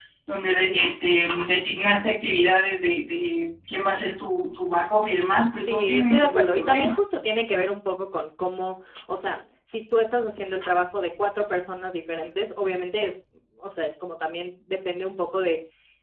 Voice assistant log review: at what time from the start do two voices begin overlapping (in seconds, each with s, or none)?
5.6 s